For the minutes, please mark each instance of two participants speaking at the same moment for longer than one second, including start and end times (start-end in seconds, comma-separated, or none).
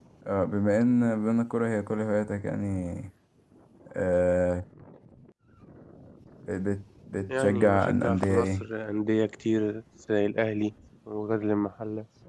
7.3-8.7